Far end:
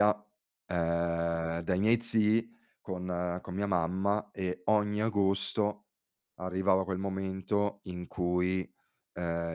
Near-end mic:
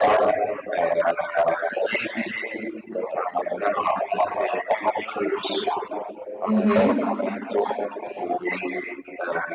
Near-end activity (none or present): present